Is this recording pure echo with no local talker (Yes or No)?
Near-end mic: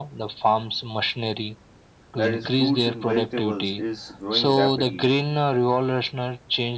No